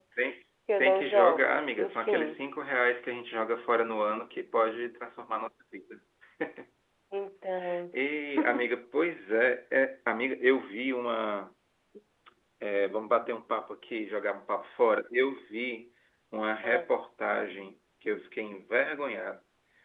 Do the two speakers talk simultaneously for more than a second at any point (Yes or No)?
Yes